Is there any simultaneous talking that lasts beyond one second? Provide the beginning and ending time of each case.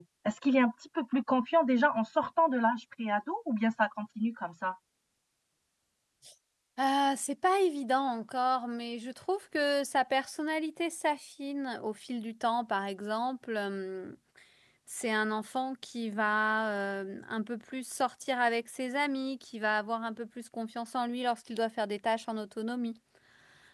none

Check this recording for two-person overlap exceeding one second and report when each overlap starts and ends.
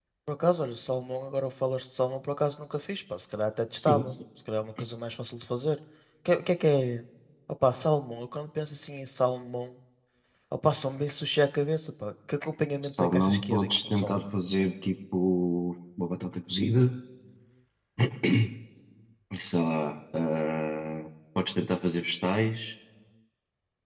13.0-14.2

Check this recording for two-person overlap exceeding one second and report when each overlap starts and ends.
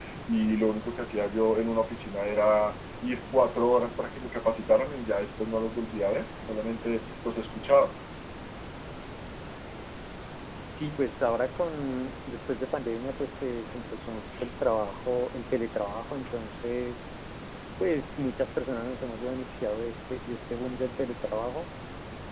none

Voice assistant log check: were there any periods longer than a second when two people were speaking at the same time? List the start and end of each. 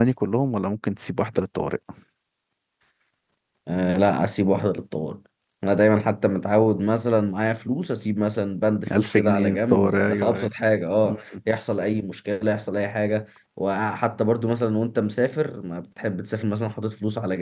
9.0-10.5

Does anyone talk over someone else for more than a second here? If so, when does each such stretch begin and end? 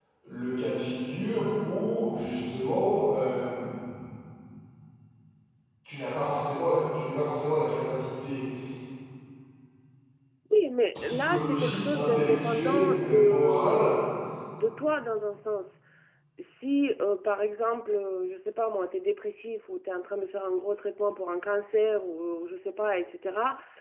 11.0-13.9

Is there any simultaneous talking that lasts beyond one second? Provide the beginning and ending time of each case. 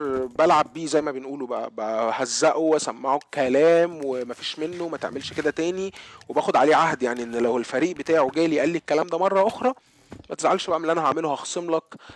none

